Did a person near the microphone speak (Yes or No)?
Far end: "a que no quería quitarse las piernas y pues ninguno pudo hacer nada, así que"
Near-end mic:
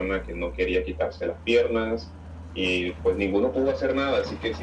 No